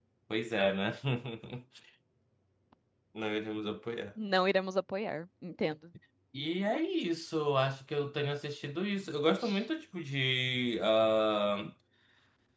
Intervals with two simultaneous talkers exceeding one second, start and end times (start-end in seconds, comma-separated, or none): none